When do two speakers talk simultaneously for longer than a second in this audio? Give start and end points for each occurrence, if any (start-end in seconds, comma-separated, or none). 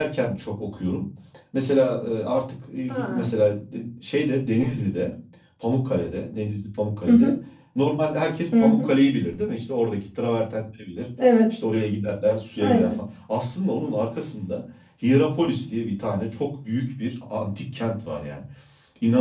none